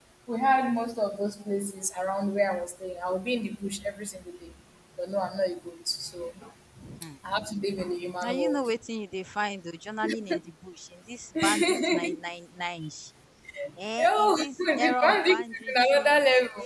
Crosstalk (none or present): present